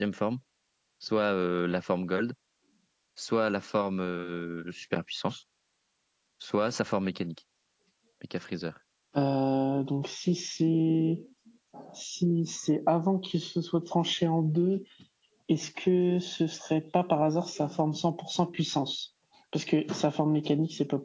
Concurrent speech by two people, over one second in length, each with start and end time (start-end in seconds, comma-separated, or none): none